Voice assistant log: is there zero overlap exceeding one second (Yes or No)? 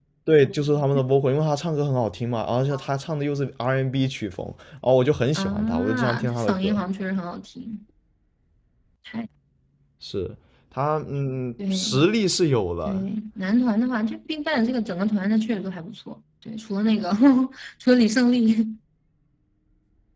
No